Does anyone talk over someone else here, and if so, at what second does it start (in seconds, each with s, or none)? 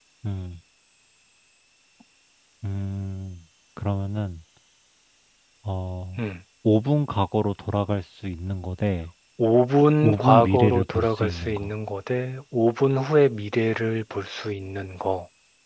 10.0 s